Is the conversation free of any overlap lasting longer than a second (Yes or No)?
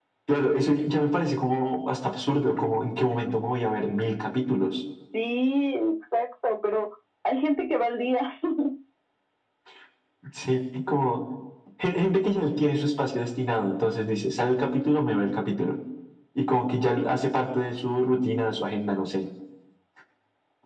Yes